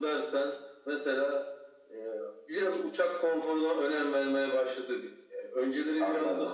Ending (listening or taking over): listening